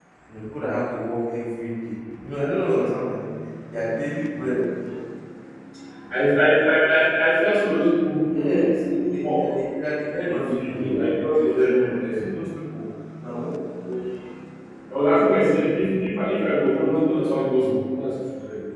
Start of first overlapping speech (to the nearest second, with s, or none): 8 s